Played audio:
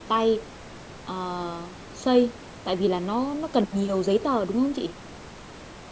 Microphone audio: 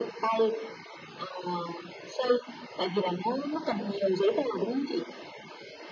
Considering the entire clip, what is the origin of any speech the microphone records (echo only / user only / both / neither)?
echo only